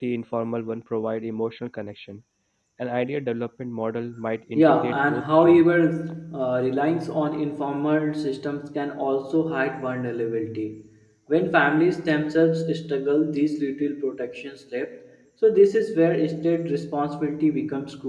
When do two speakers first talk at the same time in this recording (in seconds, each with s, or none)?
4.6 s